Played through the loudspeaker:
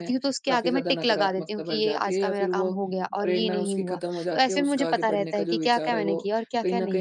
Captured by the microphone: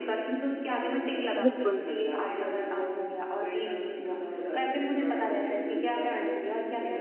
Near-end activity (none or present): present